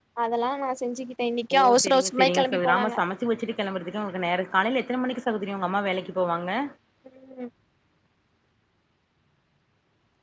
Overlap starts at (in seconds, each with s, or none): 1.5 s